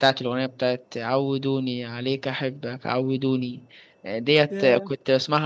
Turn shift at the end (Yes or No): No